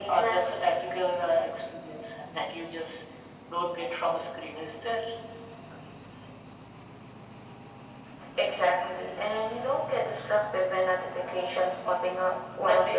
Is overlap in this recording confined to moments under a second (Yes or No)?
Yes